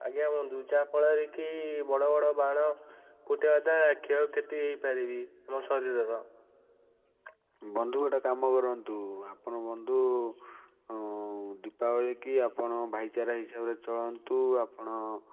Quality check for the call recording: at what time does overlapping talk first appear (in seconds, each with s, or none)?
none